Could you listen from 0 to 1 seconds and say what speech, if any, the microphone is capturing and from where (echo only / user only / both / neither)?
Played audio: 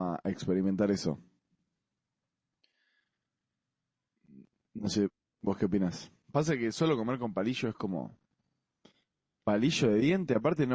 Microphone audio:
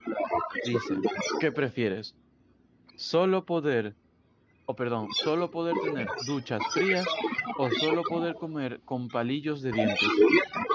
both